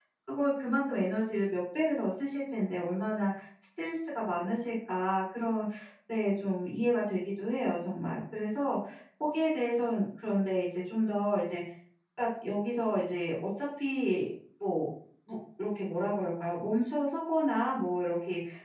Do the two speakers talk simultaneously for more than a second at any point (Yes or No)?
No